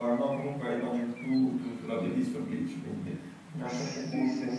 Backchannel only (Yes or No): No